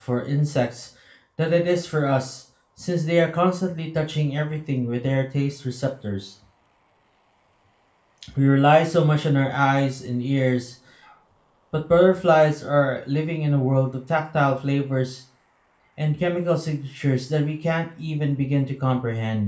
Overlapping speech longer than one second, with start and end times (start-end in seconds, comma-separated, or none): none